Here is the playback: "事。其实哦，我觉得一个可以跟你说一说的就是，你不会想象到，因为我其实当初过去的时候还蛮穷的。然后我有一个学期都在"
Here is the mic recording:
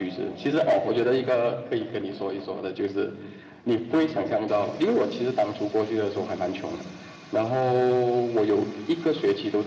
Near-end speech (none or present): none